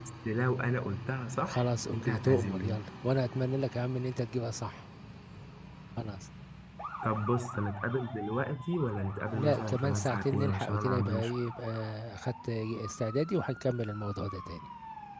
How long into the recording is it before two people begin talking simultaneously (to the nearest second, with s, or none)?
1 s